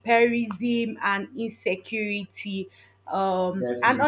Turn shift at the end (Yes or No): No